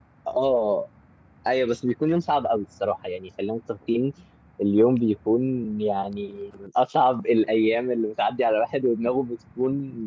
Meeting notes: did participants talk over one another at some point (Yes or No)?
No